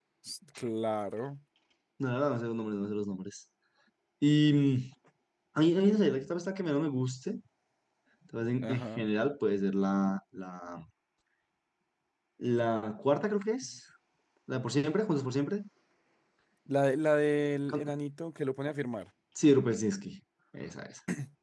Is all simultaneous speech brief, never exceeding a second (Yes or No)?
Yes